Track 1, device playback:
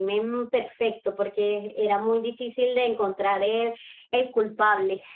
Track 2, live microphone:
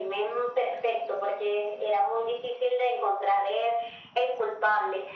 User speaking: No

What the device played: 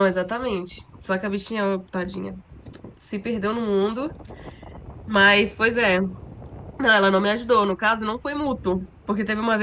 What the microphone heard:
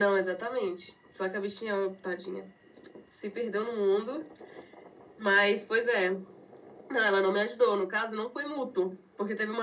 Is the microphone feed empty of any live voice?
Yes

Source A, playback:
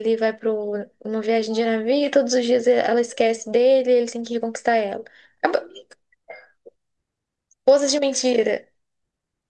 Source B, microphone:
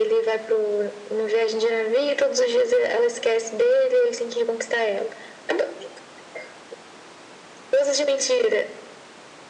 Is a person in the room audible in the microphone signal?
No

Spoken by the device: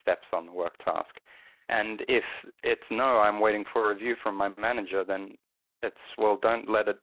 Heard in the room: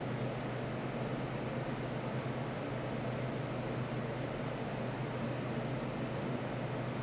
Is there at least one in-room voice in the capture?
No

